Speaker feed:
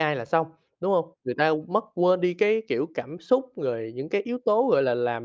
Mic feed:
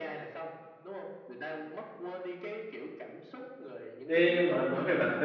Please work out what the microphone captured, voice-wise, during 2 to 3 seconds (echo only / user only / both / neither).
echo only